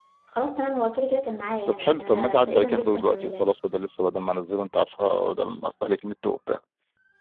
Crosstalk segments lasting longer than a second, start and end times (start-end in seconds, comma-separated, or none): 1.7-3.4